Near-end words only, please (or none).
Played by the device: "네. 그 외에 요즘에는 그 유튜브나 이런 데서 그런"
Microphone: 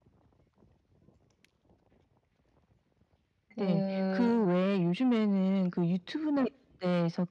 그